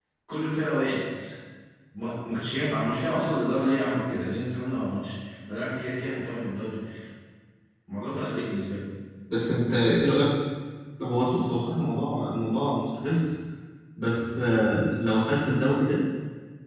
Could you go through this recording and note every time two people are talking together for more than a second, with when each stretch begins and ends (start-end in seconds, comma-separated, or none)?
none